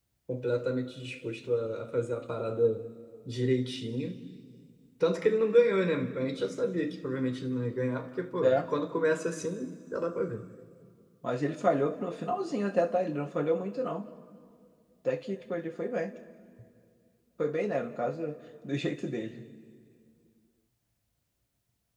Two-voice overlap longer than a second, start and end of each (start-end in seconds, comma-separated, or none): none